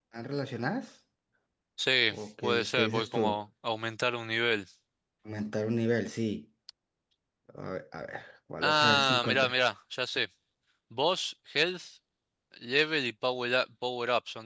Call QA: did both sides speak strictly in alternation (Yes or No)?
No